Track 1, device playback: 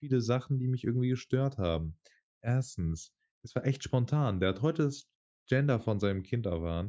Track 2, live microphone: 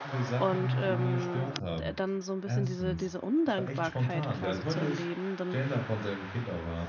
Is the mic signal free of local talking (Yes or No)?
No